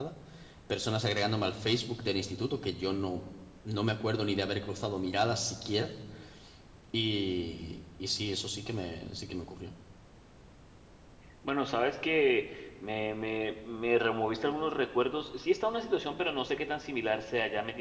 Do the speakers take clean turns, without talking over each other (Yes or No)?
Yes